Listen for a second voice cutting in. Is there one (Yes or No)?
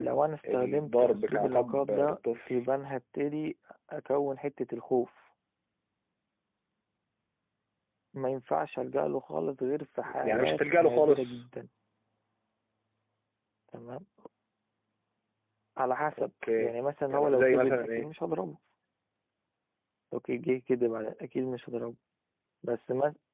Yes